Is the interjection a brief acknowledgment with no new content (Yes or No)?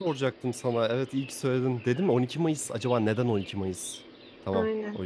No